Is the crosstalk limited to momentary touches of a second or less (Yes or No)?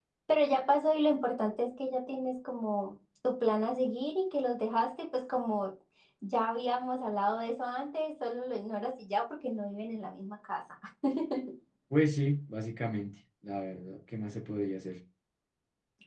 Yes